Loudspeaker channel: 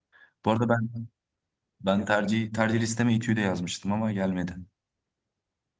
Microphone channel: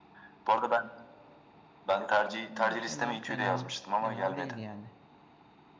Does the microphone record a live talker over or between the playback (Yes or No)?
Yes